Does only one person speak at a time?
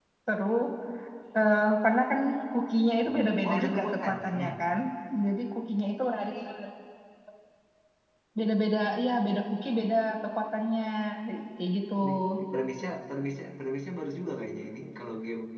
No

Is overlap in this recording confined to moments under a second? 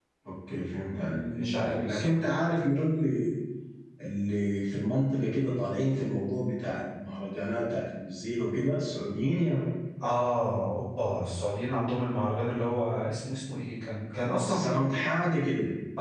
No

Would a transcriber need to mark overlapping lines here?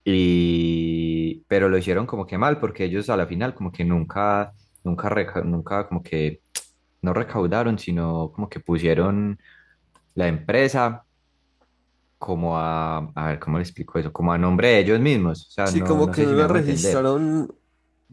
Yes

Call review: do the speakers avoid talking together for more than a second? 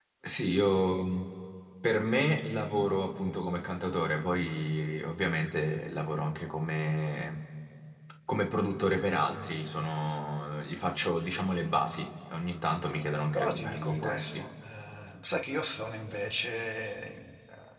No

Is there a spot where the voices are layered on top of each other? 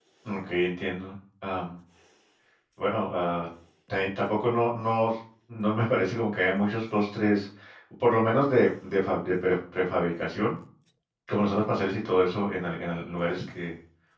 No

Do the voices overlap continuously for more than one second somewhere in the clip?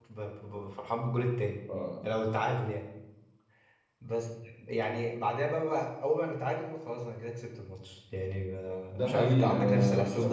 Yes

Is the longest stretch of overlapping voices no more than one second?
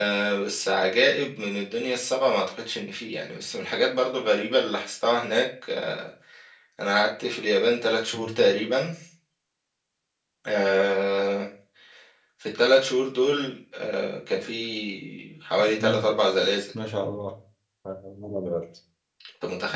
Yes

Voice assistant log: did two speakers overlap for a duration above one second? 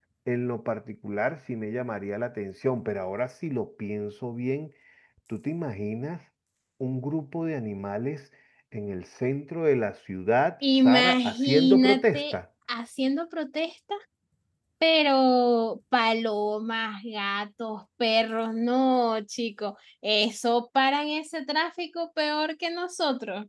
Yes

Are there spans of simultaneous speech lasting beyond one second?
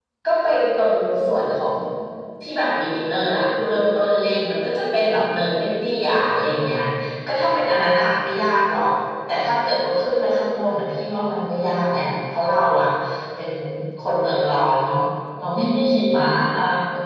No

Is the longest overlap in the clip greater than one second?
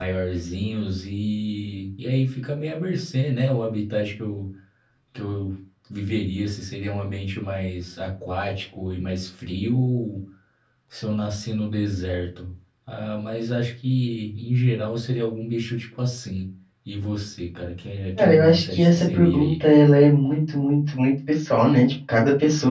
Yes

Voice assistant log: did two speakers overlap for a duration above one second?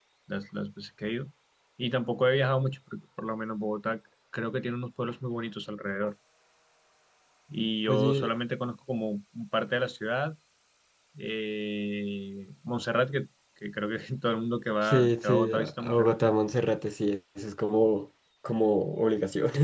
Yes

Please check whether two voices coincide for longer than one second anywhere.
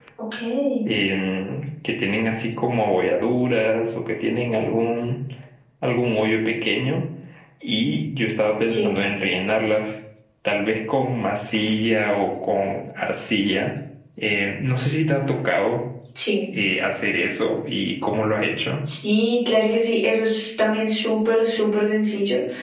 No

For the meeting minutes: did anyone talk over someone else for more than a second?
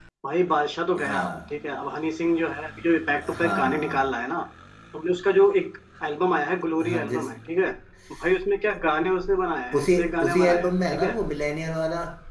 Yes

